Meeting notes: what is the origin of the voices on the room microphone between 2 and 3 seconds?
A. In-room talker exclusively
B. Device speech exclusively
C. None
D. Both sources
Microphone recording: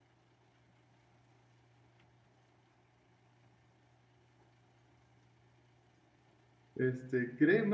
C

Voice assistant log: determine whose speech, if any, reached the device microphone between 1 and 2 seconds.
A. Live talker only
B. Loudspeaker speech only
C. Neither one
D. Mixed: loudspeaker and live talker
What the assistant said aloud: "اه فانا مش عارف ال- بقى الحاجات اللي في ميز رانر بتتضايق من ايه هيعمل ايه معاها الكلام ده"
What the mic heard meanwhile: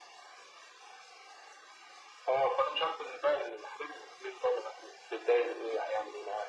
C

